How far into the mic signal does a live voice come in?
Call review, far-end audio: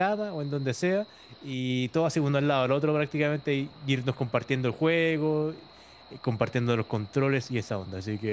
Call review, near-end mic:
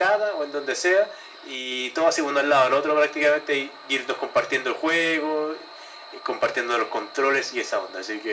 none

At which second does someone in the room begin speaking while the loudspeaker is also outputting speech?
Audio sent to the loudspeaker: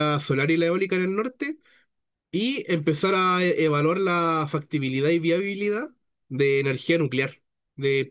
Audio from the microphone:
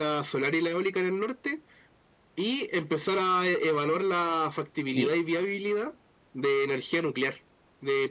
4.9 s

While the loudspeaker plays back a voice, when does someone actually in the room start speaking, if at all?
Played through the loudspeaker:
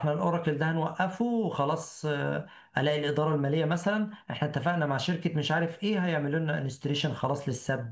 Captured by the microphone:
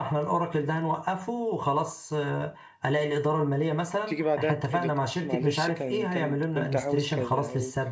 4.0 s

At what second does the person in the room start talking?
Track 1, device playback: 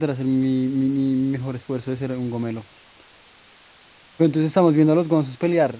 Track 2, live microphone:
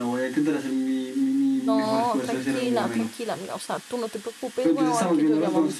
1.5 s

